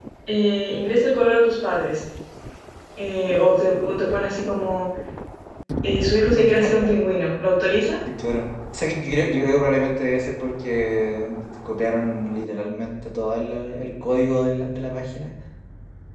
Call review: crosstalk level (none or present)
none